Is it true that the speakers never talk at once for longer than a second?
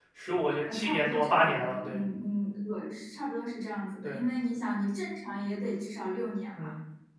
No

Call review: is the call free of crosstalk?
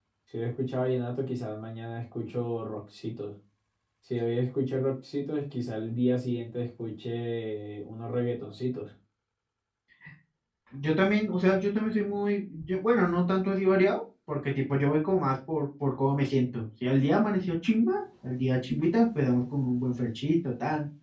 Yes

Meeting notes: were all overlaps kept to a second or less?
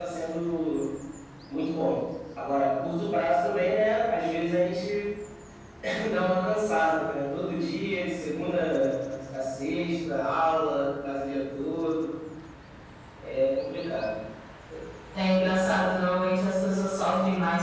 Yes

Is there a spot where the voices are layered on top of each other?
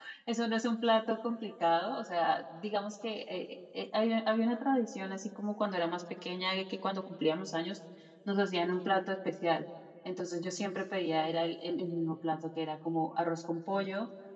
No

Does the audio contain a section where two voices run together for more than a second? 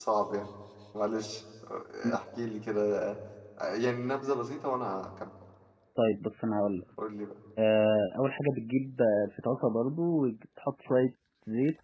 No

